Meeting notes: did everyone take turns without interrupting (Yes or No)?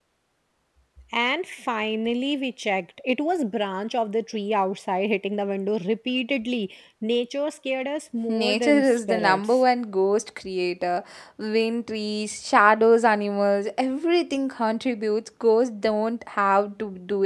No